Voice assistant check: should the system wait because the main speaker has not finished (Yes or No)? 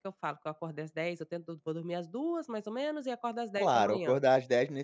No